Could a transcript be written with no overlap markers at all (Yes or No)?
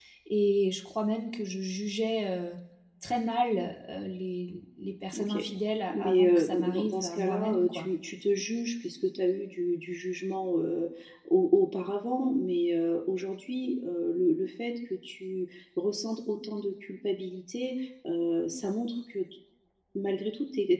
No